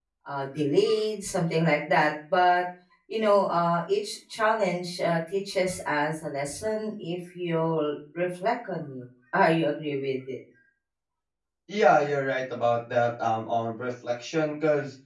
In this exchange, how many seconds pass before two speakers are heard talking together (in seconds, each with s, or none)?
none